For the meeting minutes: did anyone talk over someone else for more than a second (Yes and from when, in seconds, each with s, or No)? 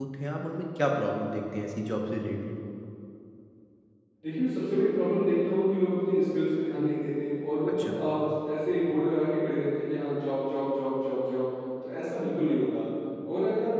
No